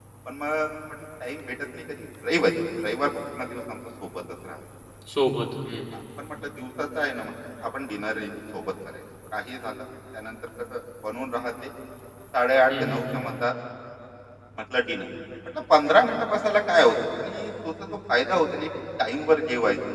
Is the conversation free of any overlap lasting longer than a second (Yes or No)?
Yes